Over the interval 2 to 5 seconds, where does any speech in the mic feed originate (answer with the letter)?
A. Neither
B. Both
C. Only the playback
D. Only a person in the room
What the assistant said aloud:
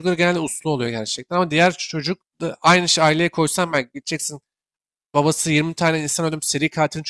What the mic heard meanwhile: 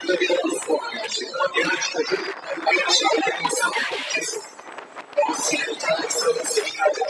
C